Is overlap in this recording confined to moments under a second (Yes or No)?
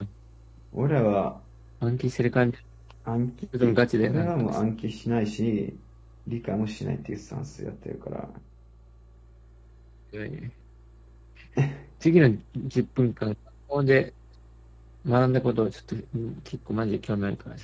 Yes